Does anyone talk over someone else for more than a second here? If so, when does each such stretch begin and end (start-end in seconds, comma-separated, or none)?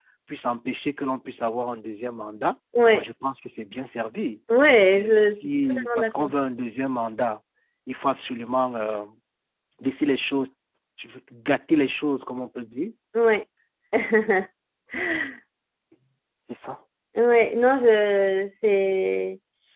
4.9-6.3